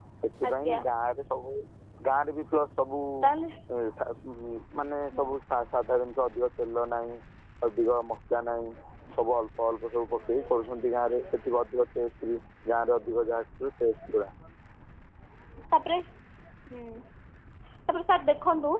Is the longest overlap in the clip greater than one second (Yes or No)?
No